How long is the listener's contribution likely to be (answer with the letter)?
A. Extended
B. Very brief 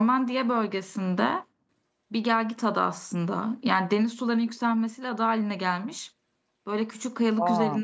B